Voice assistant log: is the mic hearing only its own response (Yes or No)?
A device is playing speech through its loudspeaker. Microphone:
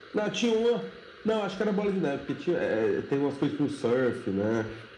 Yes